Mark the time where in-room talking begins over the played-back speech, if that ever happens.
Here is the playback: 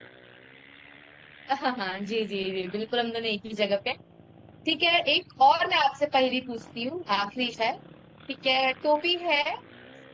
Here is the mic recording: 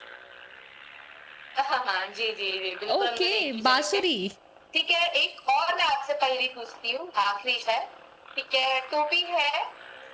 3.0 s

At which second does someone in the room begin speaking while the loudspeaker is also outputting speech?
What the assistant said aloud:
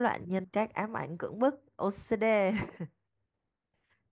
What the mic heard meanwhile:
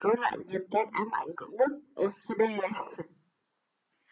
none

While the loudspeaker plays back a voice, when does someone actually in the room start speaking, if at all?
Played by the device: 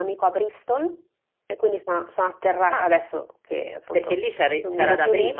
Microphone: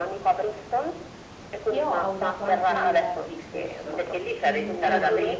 1.7 s

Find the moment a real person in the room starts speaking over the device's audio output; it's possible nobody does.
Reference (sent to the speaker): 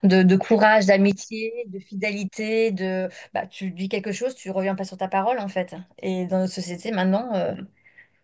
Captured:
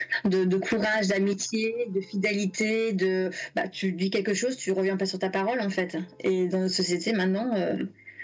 none

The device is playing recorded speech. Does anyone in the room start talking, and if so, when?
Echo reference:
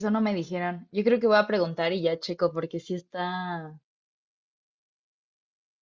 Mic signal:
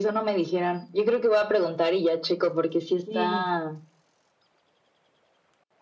3.0 s

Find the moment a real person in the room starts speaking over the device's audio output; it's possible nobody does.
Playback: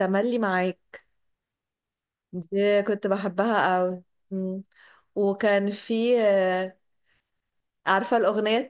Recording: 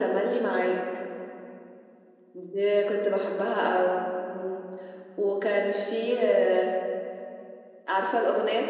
none

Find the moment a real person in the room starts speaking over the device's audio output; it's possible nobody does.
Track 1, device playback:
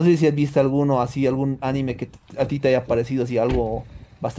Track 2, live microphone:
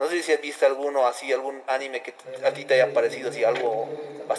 2.2 s

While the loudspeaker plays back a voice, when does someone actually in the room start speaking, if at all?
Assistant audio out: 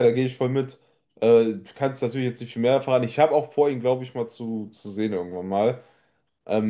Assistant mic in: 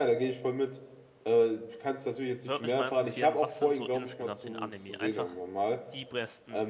2.4 s

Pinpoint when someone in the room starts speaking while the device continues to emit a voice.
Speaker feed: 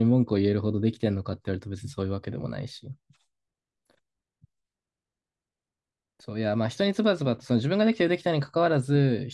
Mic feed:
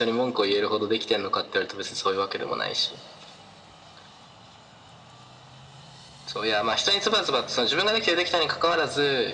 none

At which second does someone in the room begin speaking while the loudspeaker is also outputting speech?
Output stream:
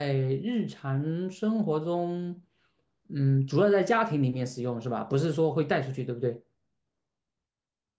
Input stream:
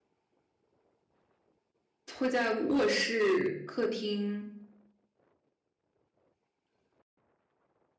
2.1 s

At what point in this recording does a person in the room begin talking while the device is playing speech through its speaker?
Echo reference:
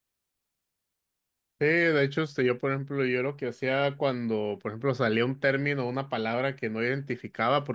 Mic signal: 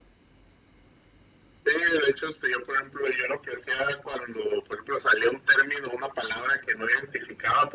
none

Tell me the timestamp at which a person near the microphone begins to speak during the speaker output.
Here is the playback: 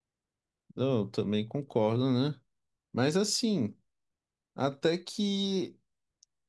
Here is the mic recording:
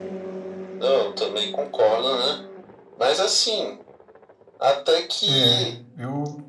5.3 s

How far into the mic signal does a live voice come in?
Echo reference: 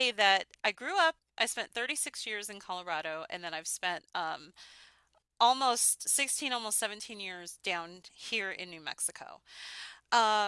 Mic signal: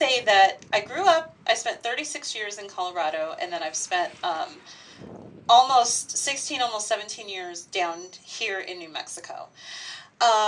none

